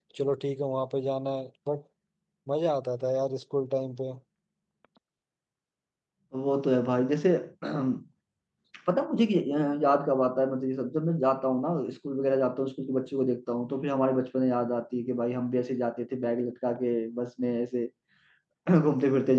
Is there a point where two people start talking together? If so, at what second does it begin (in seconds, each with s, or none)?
none